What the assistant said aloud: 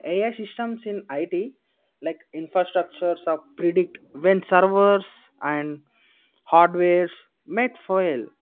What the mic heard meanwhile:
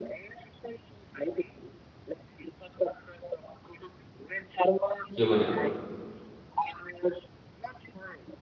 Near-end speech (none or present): present